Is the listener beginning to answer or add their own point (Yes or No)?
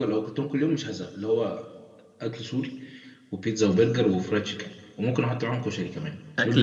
Yes